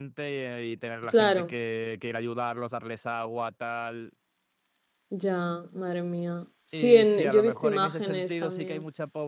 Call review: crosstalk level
present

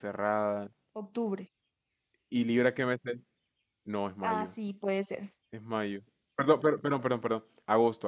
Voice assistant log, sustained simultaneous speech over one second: none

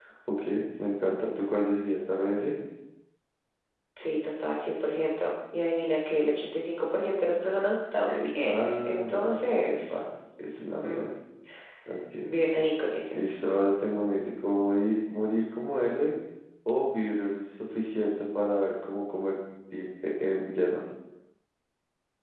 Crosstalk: present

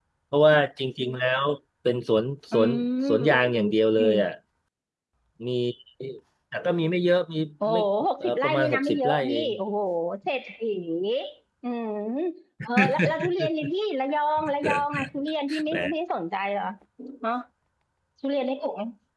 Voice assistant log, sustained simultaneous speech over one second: present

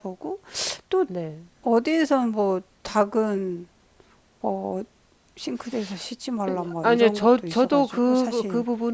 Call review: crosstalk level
present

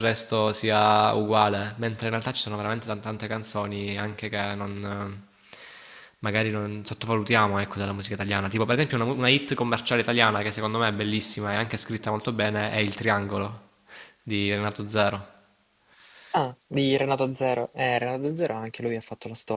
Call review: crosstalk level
none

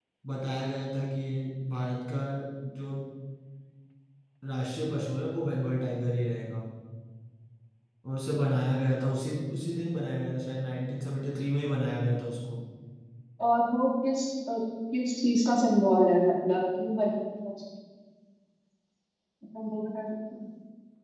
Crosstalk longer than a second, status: none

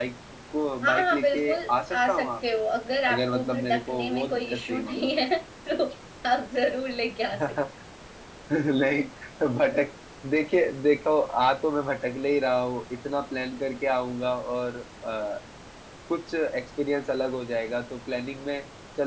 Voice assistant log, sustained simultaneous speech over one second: present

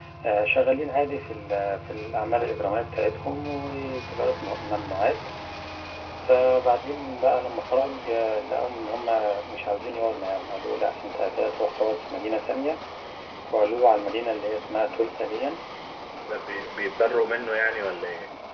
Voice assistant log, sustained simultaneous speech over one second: none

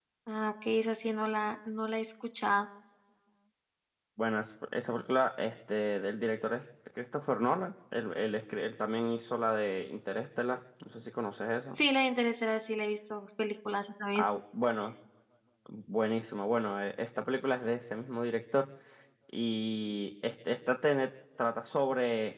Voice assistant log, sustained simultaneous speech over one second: none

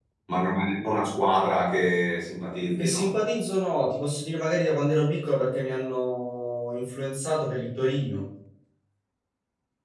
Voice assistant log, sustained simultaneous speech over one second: none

